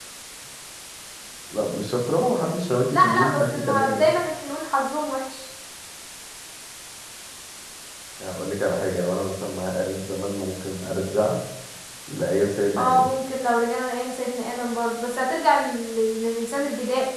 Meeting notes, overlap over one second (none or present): present